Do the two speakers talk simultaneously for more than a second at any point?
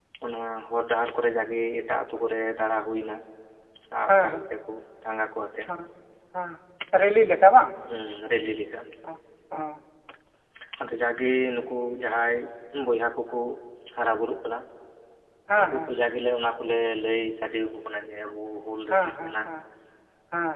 No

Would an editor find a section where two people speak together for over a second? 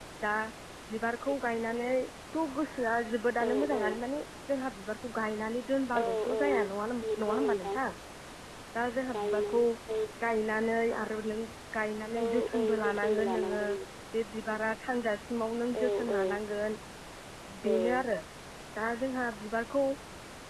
Yes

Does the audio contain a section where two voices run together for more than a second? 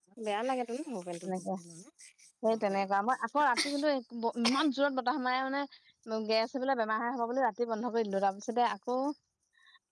No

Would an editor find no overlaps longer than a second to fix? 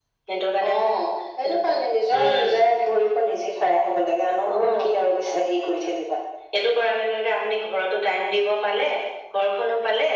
Yes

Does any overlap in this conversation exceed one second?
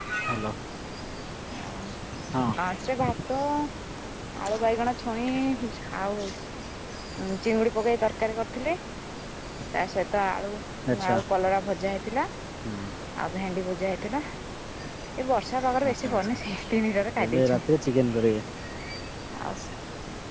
No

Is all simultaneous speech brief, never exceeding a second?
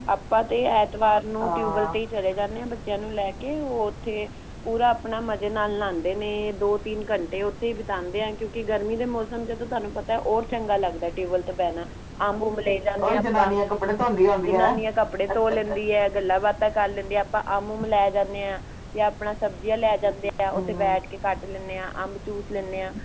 Yes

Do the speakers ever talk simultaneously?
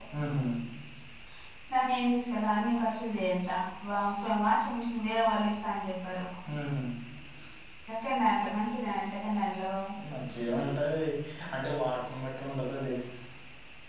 No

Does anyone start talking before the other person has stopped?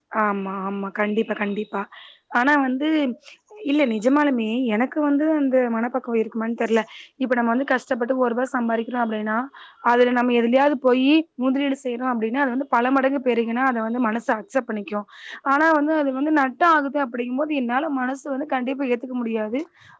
No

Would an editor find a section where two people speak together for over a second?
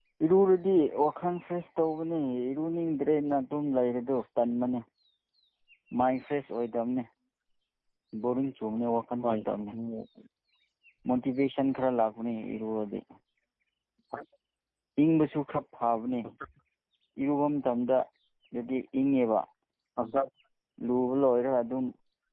No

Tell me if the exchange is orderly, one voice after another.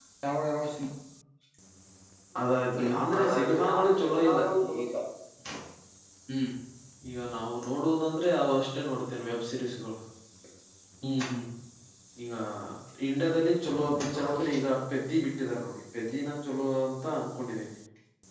No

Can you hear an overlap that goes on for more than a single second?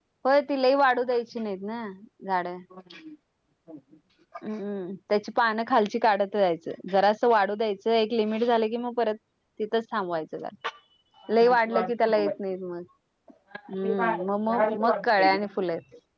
Yes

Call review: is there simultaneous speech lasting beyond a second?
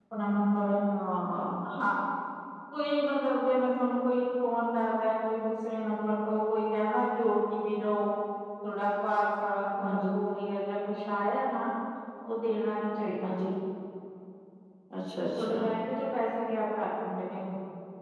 No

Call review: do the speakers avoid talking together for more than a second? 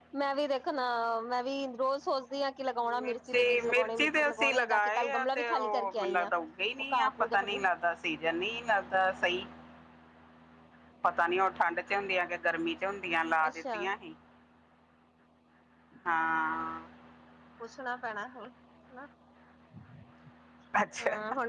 No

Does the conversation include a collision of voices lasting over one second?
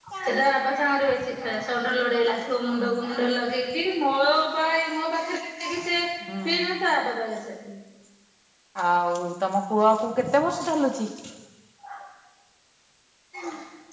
No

